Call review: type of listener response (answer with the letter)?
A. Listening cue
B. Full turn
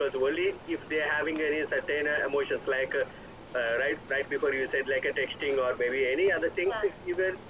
A